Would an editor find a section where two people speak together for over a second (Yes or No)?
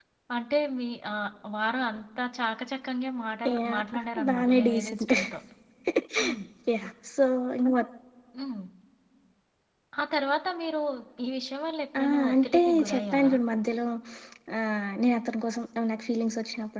Yes